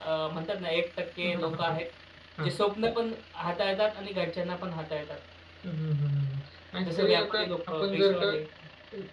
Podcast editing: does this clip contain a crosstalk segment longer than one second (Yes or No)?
Yes